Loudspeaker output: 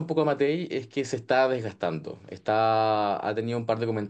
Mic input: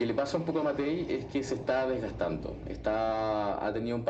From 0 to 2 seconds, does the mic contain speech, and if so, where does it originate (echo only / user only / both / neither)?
echo only